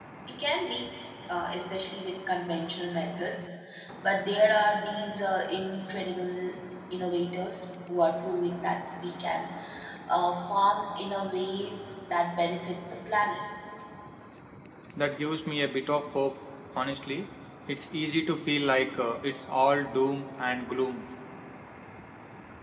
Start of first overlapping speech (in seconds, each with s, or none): none